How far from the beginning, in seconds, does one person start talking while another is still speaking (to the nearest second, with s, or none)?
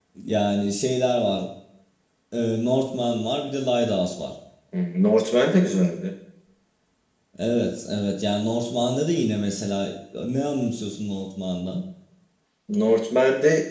none